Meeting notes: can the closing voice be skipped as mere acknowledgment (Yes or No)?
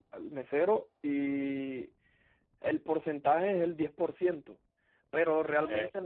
Yes